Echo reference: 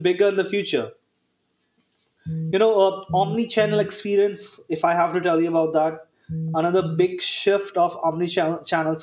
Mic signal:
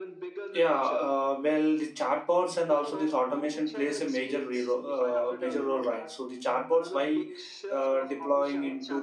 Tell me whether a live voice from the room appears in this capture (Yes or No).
Yes